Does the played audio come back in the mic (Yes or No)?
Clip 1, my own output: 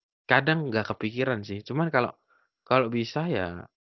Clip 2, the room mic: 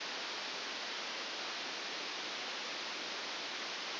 No